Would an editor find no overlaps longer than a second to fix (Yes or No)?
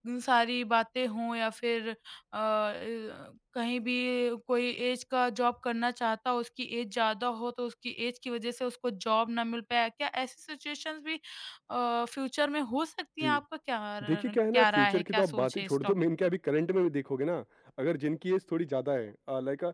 No